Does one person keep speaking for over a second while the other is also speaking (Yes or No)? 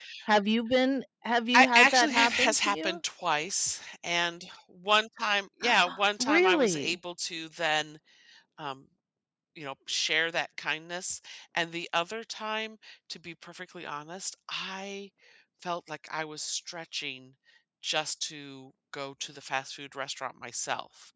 Yes